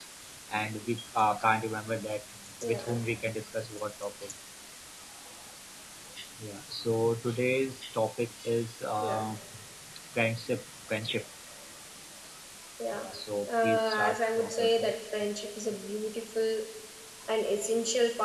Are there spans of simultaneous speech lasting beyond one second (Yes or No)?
Yes